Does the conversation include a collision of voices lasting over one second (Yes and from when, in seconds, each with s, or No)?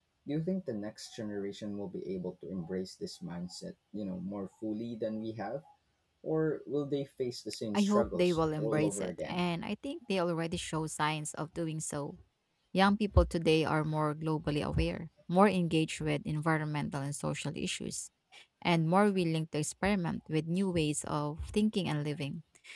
Yes, from 7.7 s